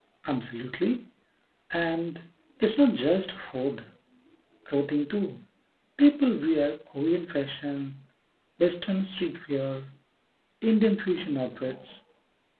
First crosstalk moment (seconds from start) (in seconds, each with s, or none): none